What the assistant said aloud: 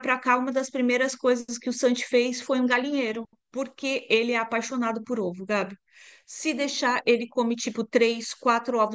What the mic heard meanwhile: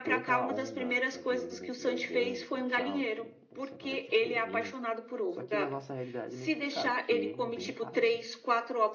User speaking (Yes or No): Yes